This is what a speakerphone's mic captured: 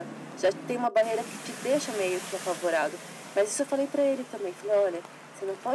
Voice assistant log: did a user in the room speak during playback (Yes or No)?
No